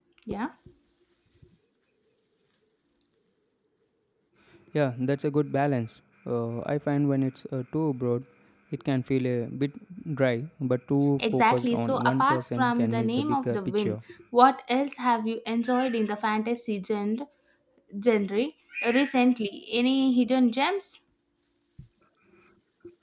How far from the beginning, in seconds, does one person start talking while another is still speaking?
11 s

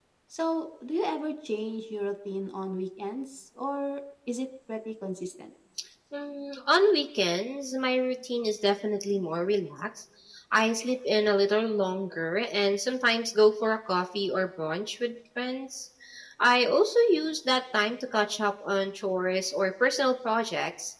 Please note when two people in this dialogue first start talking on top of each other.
none

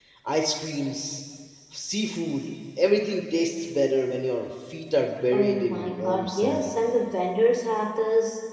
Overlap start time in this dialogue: 5 s

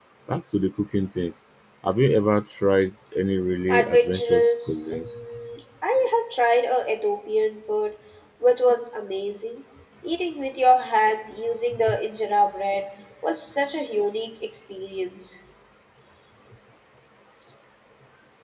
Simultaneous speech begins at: 4 s

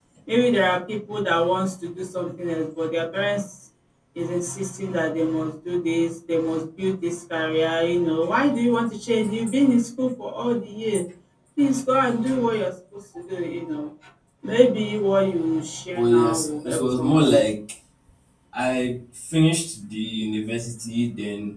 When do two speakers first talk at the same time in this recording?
16 s

